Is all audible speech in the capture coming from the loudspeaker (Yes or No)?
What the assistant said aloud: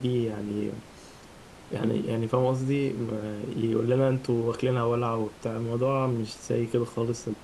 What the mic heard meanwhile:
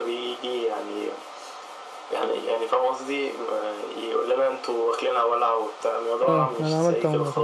No